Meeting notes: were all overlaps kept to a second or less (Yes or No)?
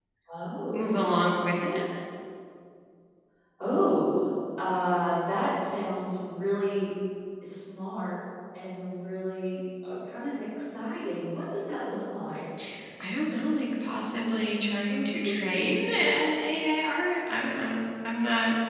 Yes